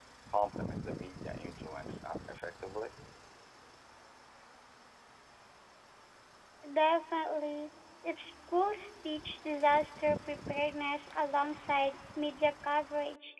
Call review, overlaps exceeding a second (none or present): none